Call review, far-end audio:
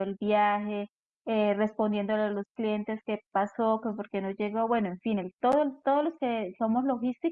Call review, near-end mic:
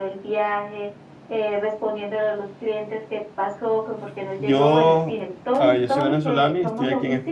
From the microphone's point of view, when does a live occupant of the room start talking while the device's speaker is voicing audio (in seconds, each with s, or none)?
4.4 s